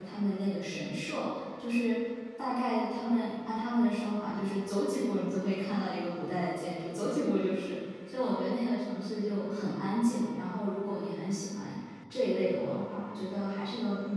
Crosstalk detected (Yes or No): No